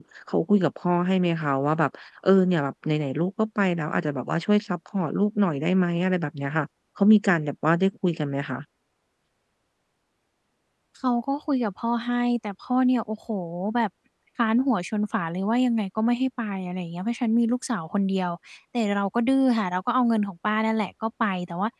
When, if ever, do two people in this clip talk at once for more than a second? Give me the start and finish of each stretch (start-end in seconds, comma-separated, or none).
none